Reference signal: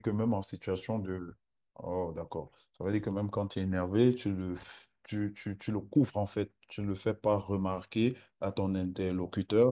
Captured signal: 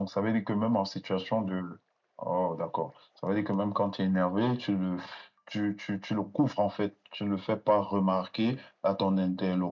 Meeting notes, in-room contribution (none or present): none